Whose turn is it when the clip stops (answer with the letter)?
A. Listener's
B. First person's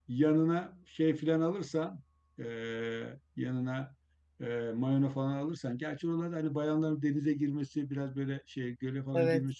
B